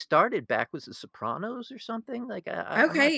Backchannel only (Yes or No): No